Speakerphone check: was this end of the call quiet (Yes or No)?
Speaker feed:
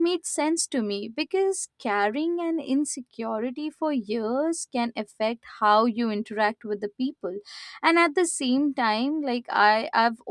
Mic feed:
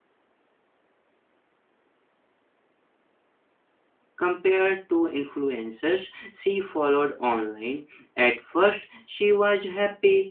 No